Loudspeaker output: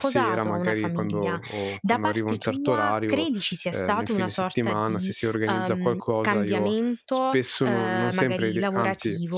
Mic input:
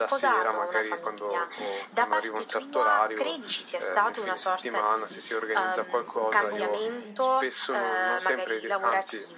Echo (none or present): present